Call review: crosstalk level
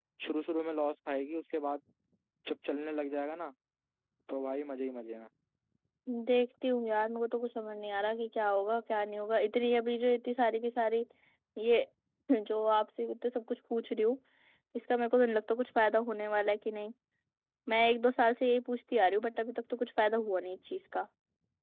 none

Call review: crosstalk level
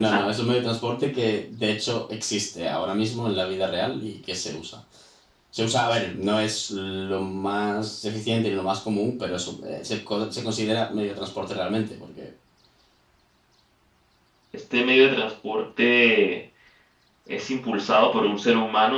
none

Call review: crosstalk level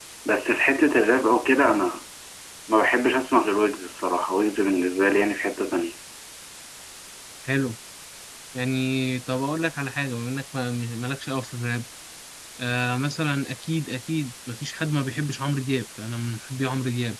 none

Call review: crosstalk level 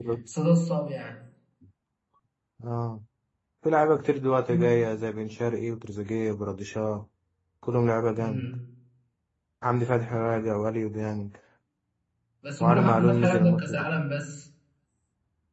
present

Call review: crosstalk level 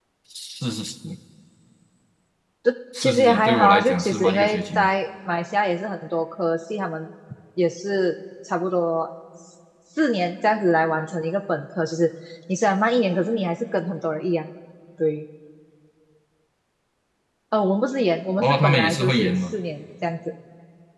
present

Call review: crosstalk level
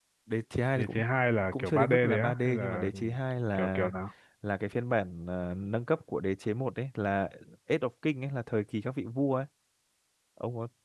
present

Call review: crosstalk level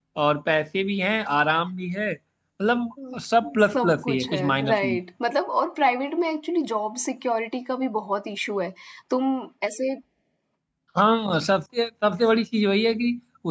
present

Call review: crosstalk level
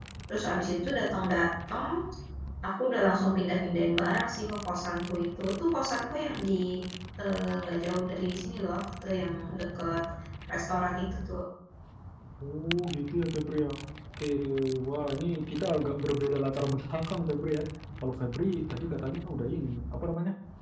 none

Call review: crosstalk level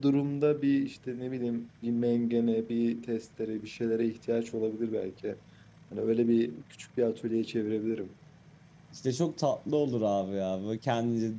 none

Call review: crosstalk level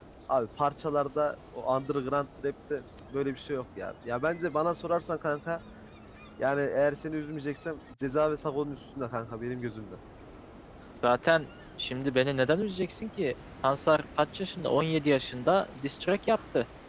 none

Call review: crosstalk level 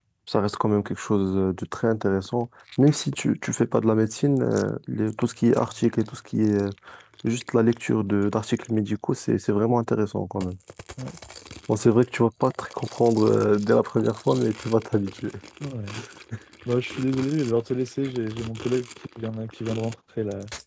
none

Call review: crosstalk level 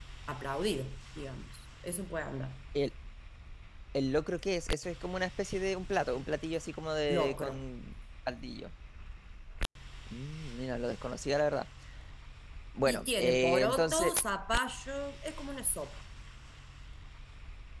present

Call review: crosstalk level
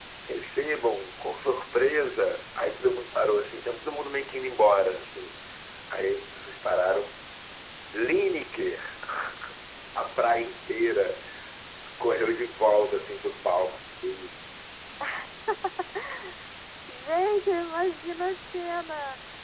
none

